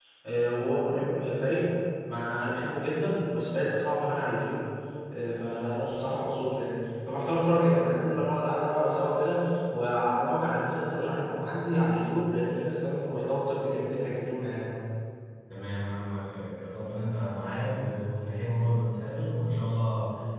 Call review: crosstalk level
none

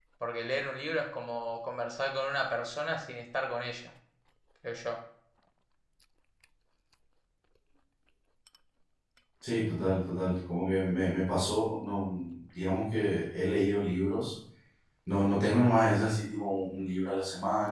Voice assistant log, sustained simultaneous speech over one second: none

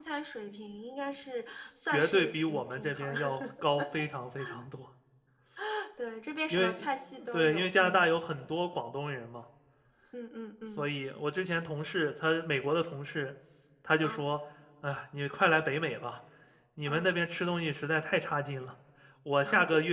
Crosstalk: present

